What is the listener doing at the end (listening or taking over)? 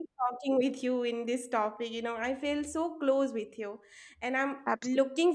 listening